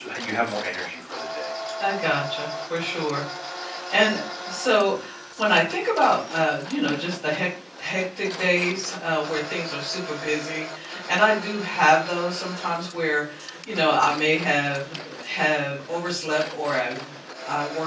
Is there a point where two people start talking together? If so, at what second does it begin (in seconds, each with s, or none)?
none